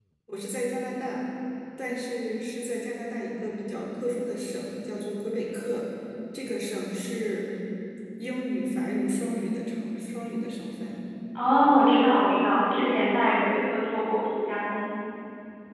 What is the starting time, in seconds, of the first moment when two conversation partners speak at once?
none

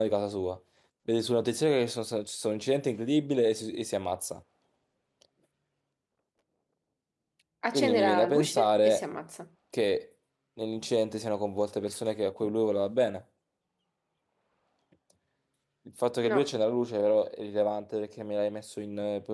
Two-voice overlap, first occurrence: 8 s

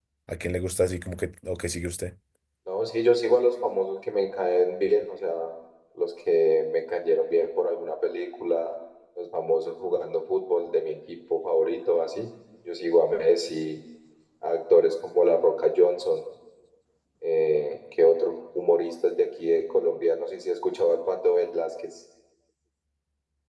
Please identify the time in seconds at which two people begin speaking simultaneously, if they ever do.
none

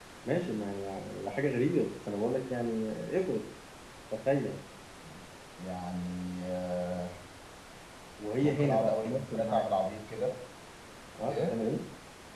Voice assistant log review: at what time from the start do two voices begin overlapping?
8 s

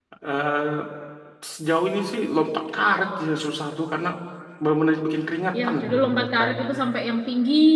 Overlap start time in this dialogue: 6 s

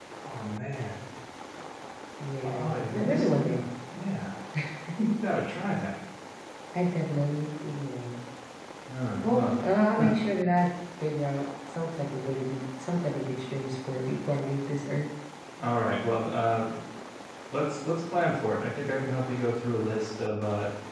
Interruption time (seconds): 2 s

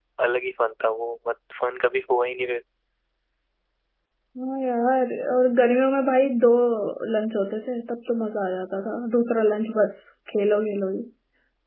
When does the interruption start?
none

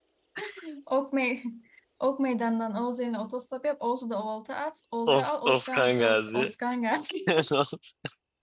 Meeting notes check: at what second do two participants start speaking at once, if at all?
5 s

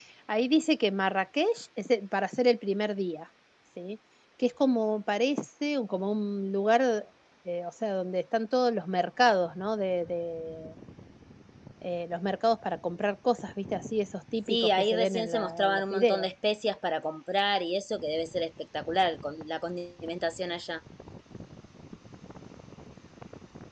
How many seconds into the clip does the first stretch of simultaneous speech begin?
14 s

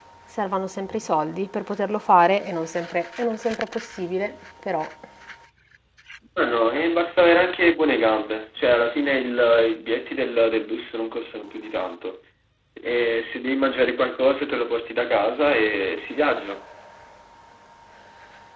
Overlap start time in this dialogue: none

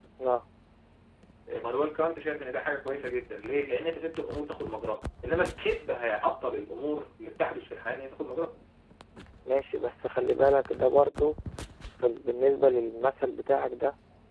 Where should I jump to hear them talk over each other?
none

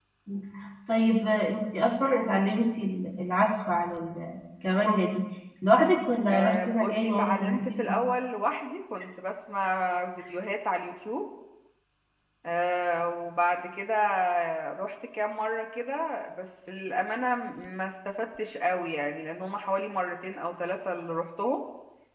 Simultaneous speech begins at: 6 s

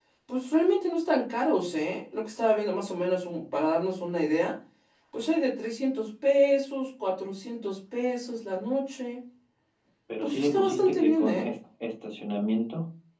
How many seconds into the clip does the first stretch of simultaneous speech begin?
10 s

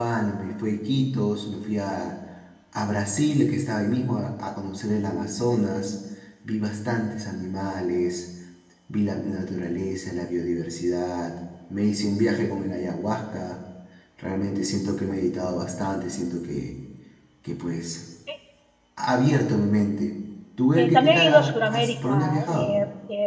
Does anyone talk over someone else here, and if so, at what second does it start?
21 s

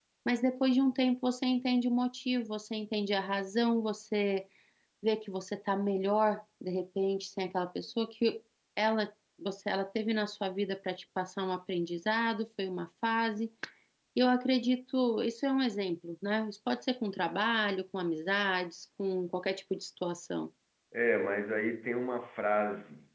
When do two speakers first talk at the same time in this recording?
none

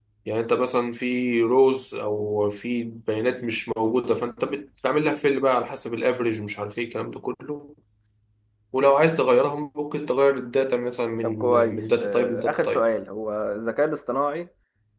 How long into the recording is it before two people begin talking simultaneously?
11 s

